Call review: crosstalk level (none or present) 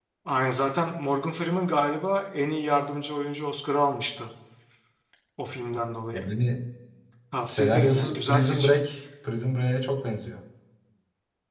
present